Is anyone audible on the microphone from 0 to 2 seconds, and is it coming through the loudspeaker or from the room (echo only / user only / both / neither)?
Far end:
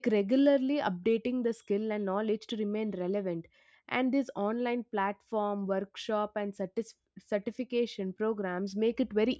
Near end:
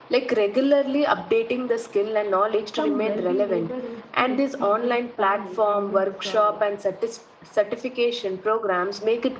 echo only